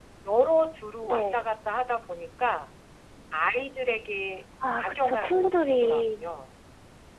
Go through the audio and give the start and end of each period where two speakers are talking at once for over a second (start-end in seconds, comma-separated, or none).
4.8-6.4